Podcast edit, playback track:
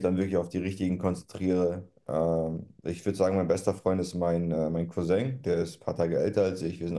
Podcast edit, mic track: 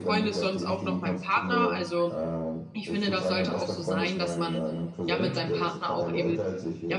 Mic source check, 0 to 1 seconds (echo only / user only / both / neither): both